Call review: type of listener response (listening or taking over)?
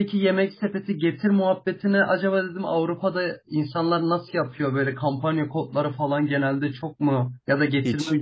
listening